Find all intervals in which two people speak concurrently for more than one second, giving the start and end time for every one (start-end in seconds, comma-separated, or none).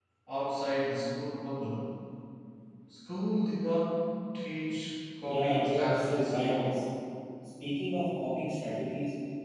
5.3-6.8